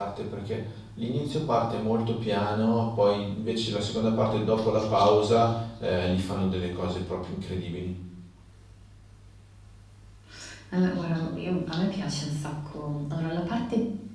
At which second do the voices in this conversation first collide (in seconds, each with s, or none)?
none